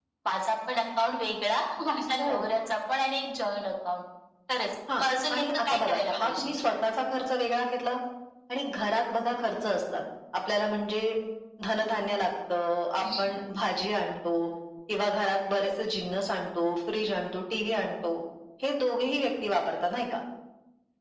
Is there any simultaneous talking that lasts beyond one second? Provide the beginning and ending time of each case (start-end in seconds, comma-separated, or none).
5.0-6.5